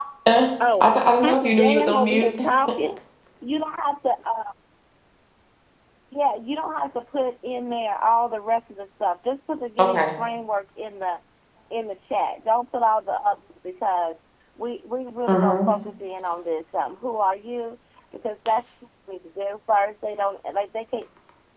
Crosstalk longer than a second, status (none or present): present